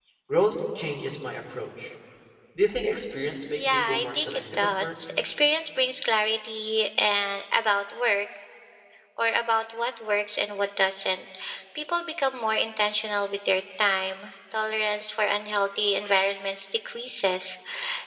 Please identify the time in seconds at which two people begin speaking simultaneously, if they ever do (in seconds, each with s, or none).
3.5 s